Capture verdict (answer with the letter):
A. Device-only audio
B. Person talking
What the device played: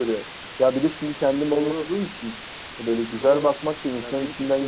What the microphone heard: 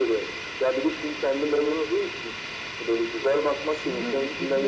B